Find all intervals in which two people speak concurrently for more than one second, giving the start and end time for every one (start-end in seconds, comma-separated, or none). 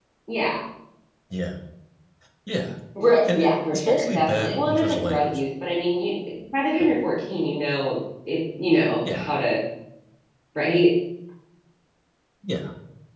3.2-5.4